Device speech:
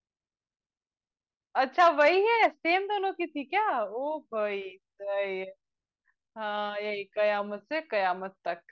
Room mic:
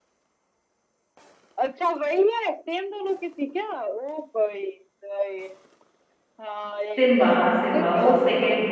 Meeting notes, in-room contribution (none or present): present